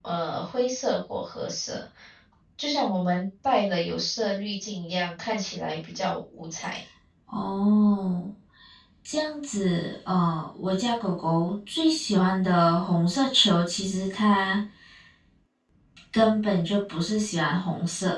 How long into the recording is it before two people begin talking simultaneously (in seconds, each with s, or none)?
none